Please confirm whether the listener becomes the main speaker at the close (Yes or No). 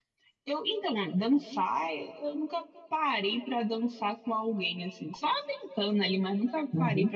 No